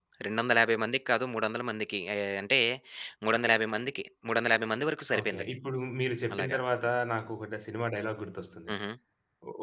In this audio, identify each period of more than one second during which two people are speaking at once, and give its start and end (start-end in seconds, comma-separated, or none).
none